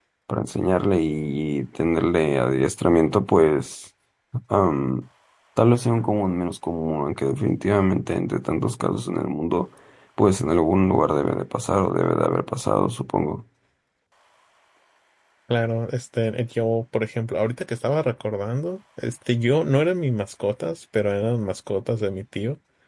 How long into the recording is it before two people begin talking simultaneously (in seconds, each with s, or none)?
none